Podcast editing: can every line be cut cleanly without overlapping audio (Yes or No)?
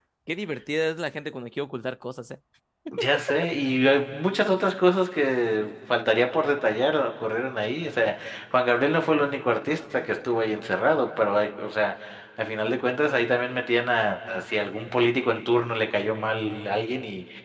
Yes